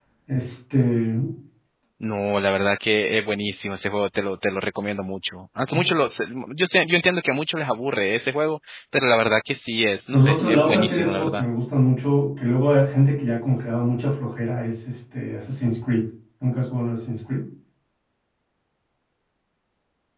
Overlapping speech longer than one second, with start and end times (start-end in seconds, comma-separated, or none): 10.1-11.4